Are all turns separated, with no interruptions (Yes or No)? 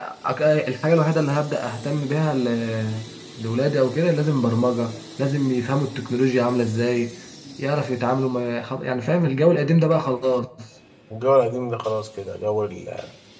Yes